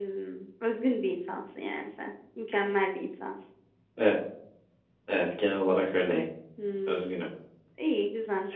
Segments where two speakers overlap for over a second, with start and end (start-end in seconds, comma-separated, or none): none